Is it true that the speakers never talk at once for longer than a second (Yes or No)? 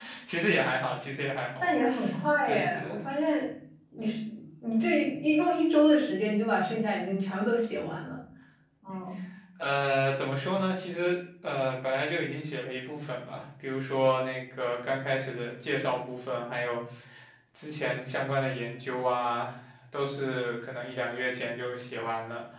Yes